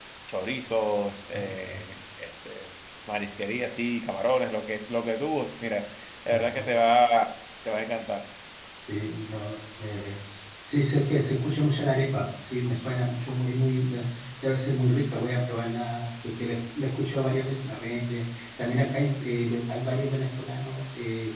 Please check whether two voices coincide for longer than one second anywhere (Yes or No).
No